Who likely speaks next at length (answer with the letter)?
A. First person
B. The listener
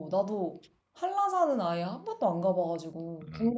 B